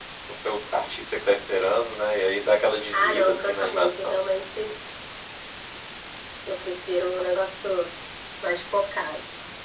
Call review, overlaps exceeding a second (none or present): present